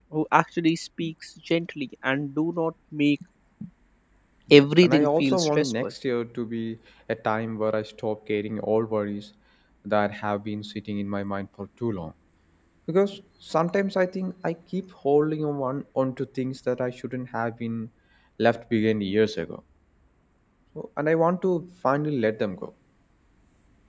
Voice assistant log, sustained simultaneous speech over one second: present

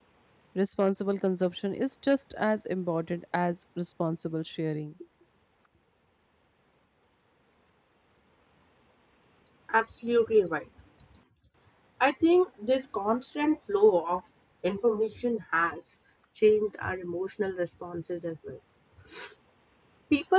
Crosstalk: none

